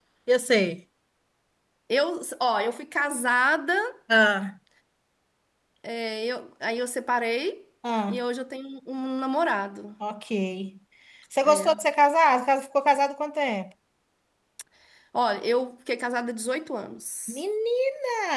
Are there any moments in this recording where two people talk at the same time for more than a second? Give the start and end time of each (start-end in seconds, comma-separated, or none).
none